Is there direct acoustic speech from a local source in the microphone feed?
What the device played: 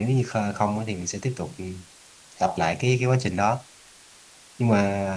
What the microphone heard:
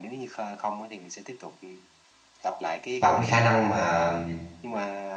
Yes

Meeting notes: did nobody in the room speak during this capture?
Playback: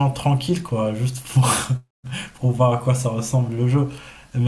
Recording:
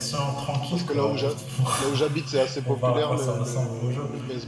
No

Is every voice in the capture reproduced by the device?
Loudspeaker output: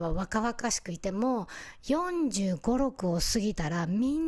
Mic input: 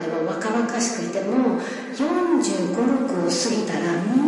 Yes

